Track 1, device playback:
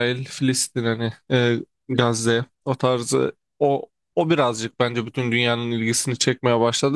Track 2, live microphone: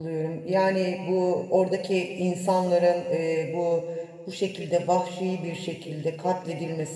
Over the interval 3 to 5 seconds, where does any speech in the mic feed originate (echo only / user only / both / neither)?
user only